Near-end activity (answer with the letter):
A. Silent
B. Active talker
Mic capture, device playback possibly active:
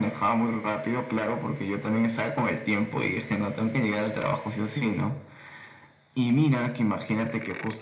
A